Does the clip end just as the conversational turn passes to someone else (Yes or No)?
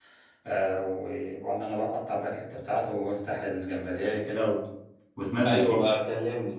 Yes